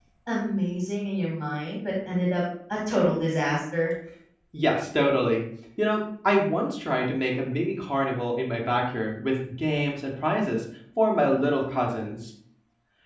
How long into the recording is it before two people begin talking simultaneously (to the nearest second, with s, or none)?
none